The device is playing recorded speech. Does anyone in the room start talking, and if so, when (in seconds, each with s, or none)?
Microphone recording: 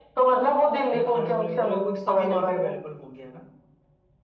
0.9 s